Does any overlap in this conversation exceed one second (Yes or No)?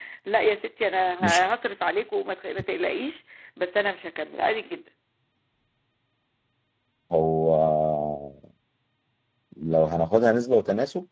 No